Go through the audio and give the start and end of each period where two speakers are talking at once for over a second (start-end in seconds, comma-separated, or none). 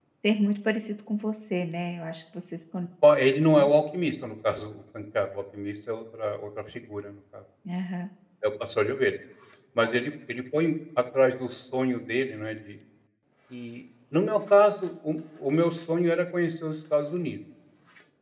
none